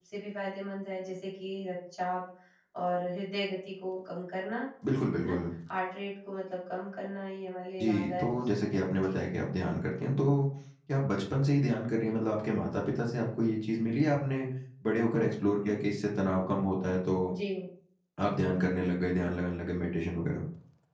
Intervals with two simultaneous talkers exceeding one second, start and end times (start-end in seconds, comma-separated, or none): 7.8-9.2